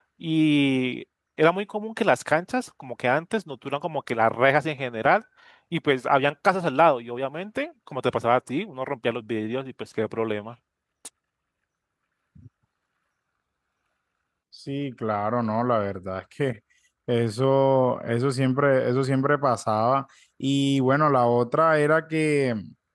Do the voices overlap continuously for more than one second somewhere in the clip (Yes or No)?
No